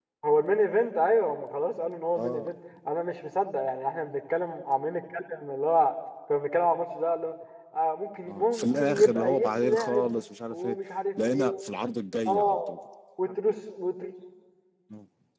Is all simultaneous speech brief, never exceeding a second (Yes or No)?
No